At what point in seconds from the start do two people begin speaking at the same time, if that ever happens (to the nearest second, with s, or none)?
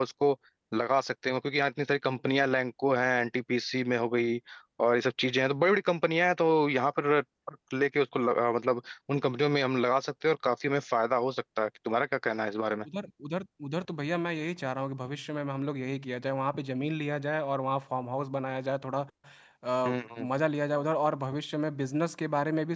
none